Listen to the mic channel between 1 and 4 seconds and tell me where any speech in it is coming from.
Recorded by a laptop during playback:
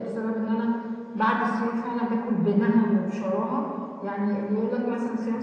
echo only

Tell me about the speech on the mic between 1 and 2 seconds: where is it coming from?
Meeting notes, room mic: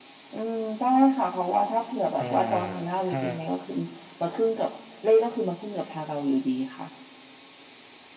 echo only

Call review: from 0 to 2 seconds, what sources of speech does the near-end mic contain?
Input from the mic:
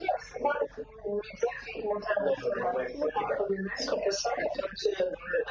echo only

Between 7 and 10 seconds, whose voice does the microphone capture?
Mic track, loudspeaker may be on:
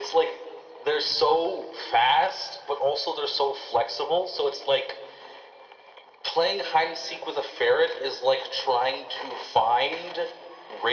echo only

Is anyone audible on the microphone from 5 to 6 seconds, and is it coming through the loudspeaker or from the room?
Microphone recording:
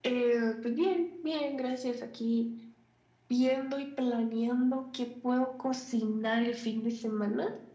echo only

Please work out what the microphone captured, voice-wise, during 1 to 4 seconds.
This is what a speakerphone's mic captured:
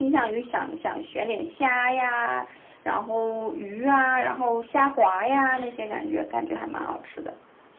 echo only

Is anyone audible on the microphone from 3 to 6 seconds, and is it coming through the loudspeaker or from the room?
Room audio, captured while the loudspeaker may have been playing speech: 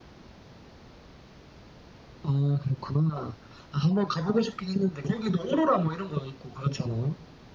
echo only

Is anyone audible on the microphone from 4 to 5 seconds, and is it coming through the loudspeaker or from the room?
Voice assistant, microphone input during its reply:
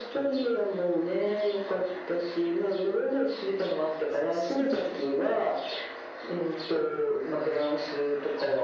both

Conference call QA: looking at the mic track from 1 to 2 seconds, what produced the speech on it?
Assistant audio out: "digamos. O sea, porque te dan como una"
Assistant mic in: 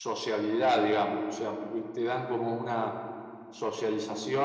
echo only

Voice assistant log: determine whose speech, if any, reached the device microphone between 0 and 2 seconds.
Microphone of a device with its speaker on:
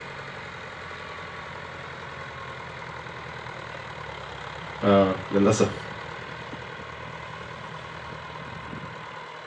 neither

